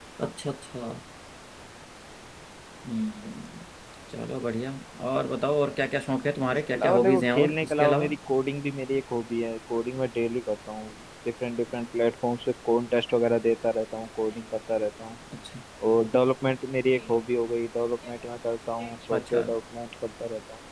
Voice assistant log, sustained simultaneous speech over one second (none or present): present